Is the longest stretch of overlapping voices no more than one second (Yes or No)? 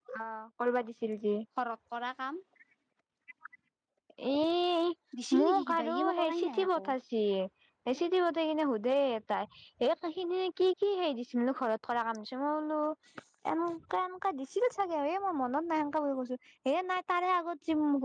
No